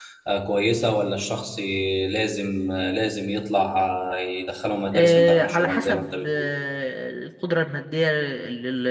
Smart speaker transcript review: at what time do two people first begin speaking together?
5 s

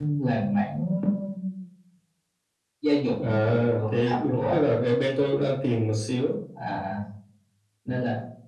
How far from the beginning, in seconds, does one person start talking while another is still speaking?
3 s

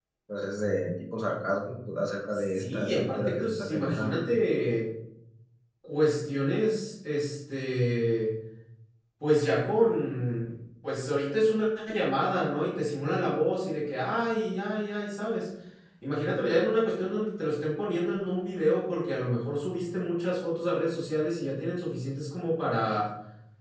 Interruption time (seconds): 2 s

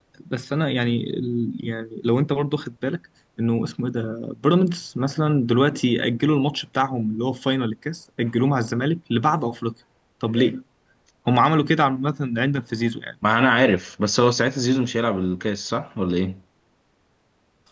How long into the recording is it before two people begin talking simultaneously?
none

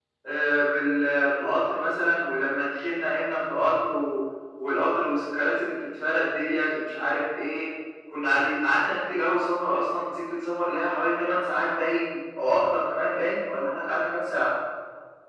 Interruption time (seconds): none

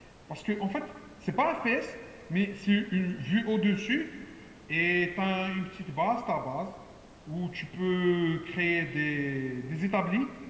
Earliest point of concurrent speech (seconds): none

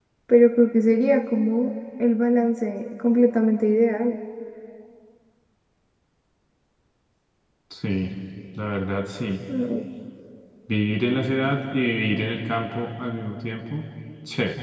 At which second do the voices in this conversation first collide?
none

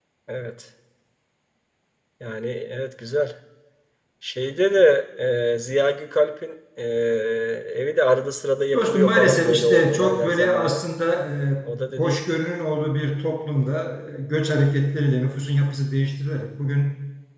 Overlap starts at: 9 s

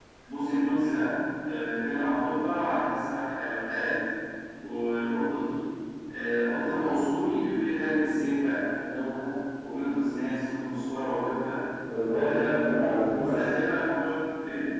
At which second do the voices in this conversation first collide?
12 s

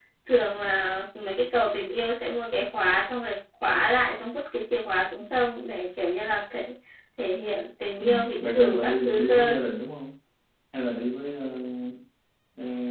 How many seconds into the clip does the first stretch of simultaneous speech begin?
8 s

